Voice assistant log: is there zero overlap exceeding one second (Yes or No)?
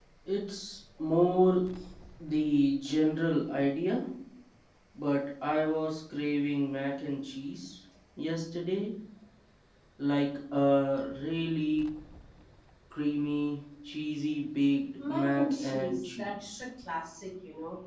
No